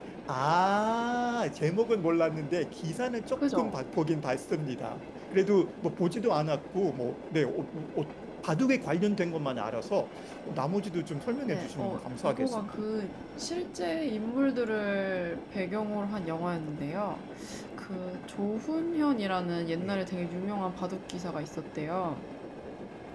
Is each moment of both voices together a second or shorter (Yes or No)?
No